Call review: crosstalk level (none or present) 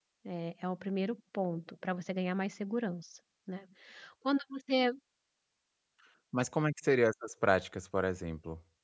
none